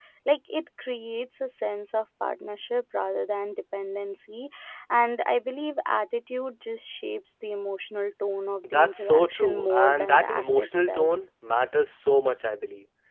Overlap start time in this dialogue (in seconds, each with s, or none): 8.6 s